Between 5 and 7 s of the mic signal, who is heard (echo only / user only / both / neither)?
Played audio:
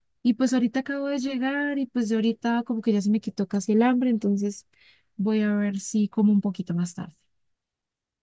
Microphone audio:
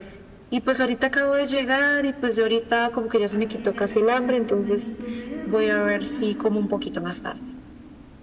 both